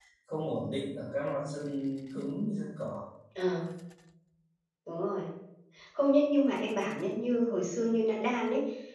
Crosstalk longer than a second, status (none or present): none